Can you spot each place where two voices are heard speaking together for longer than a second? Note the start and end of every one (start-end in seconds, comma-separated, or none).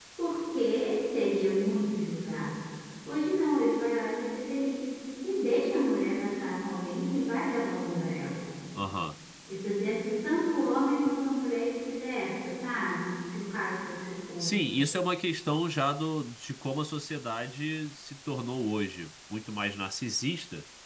none